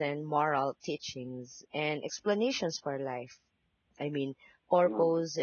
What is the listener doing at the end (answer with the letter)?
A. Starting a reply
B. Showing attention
B